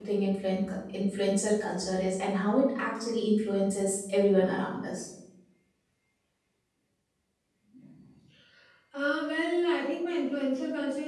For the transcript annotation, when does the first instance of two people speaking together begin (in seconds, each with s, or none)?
none